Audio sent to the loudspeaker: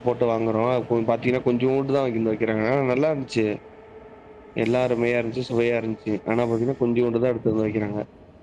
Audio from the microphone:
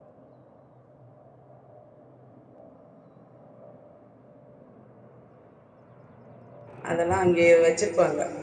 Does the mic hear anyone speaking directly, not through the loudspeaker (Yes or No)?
Yes